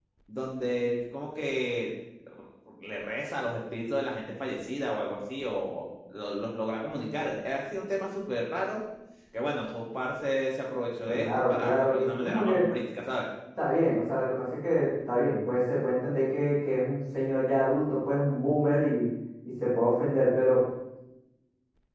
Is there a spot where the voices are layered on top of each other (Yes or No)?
Yes